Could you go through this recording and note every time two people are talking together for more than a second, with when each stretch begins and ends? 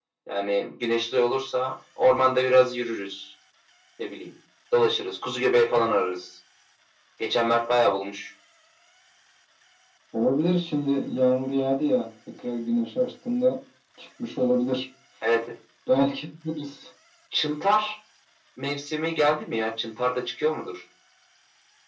none

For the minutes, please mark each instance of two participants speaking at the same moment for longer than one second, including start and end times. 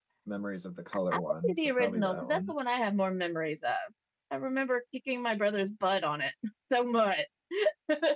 1.1-2.5

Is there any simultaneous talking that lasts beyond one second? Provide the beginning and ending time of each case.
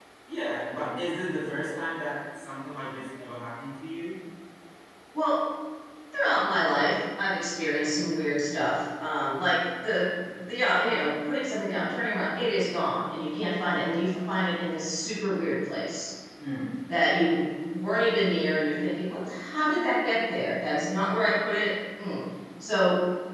none

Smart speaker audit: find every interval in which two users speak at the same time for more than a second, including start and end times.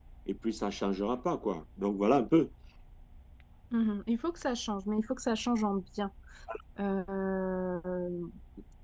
none

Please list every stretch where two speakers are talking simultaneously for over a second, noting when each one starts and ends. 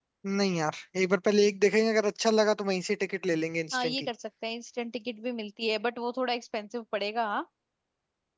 none

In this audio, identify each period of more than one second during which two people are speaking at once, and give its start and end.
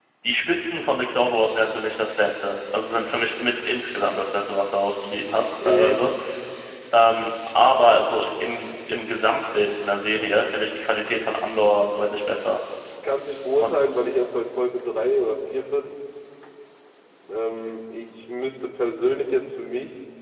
none

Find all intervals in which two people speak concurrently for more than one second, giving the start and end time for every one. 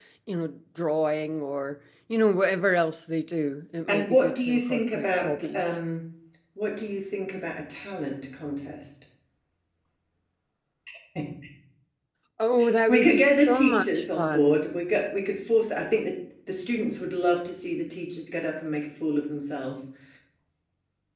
3.9-5.8, 12.9-14.6

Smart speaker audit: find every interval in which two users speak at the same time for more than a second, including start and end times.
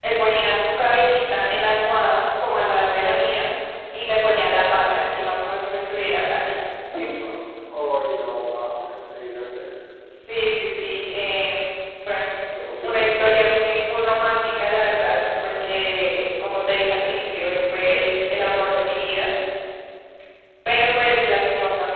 none

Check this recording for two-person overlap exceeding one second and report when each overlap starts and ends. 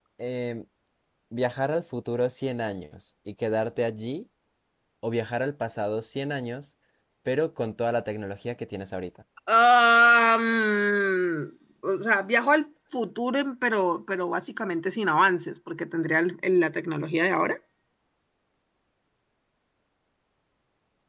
none

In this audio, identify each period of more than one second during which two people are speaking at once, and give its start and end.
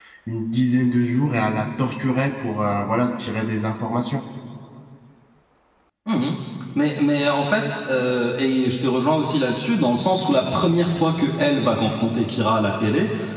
none

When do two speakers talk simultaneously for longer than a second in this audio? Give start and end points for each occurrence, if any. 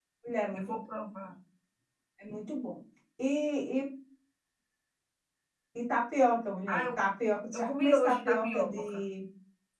7.5-9.0

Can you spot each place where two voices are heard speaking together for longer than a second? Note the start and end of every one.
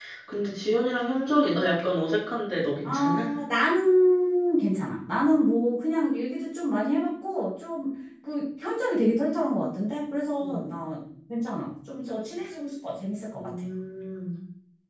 none

